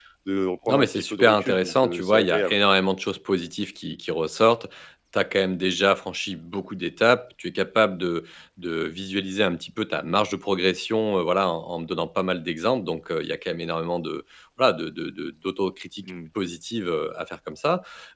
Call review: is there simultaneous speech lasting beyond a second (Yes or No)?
Yes